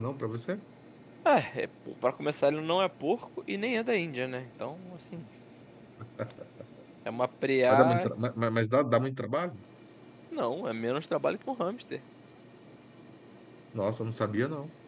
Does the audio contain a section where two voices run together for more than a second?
No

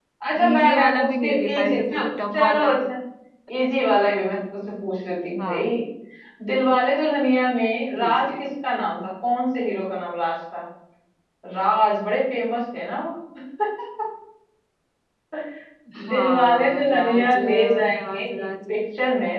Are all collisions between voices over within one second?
No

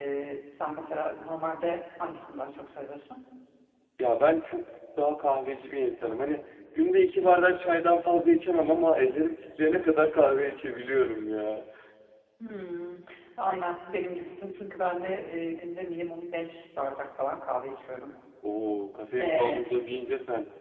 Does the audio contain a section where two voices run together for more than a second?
No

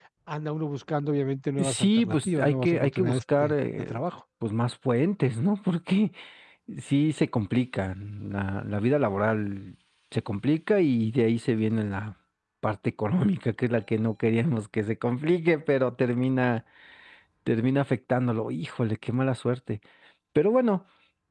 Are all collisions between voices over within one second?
No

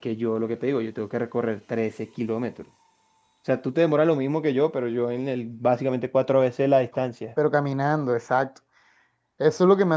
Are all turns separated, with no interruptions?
Yes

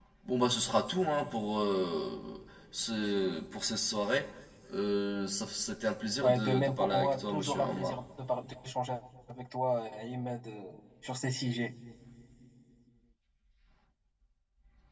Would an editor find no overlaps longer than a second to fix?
No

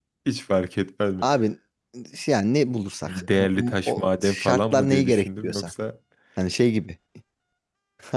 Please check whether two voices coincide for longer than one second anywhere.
Yes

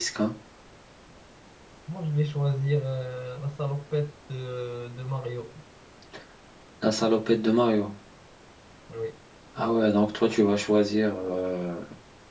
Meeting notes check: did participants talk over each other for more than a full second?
No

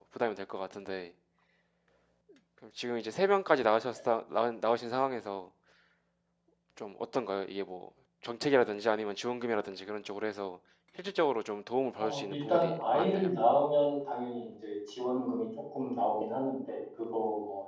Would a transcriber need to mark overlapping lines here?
Yes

